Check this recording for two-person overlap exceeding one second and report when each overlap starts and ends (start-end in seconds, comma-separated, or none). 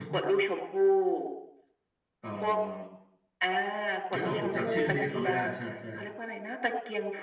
4.1-5.4